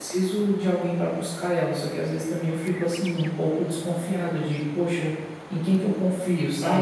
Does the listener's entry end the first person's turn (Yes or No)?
Yes